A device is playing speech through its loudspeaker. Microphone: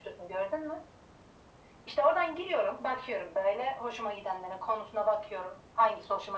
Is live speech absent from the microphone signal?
Yes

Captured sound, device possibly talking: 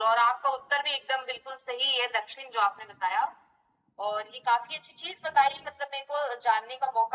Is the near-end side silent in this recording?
Yes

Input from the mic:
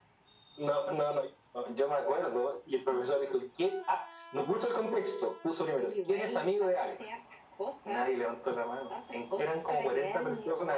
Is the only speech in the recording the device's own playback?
Yes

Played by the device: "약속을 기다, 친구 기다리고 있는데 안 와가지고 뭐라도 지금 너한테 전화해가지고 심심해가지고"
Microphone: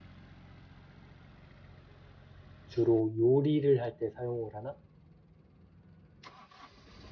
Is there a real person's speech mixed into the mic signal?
Yes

